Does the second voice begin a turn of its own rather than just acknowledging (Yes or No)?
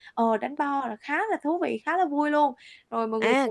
Yes